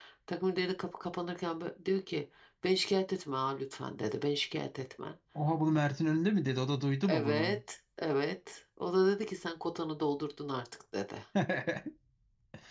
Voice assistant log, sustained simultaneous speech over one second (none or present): none